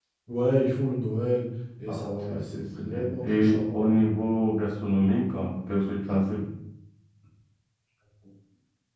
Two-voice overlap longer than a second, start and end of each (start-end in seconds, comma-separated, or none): 1.9-3.8